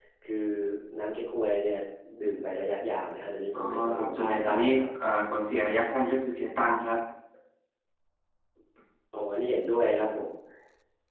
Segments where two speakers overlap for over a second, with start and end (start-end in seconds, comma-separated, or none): 3.5-4.9